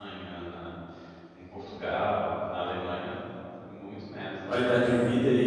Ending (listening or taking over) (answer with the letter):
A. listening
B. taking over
B